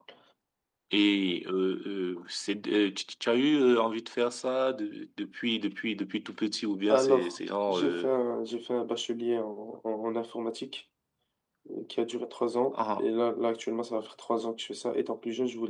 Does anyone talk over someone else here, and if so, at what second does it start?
6.9 s

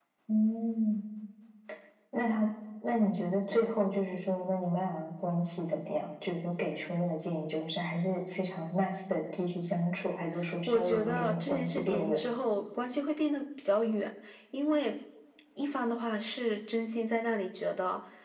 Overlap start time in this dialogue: 10.7 s

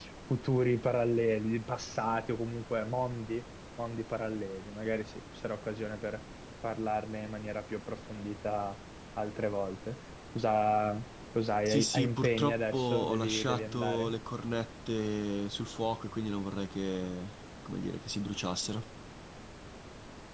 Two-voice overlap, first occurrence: 11.7 s

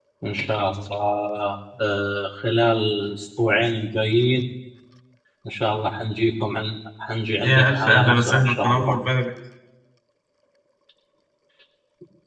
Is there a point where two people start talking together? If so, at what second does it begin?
7.4 s

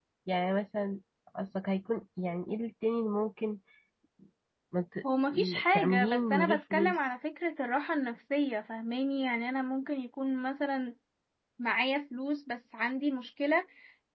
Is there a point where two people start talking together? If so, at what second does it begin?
5.3 s

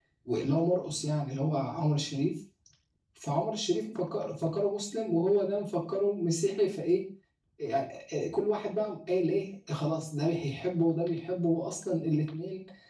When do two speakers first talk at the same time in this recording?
none

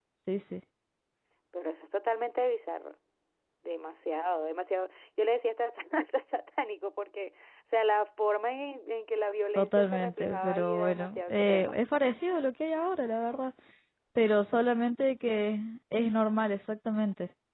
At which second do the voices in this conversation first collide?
9.6 s

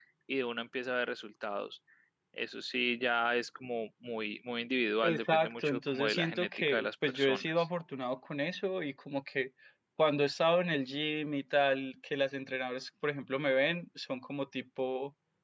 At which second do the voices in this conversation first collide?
5.0 s

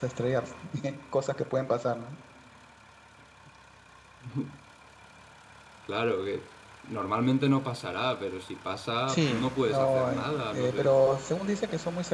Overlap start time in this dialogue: 9.1 s

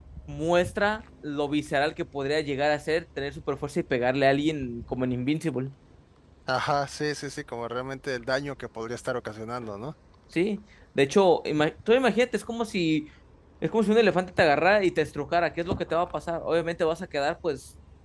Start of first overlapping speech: none

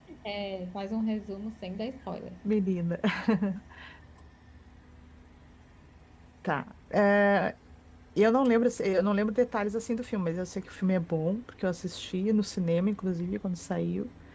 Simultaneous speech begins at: none

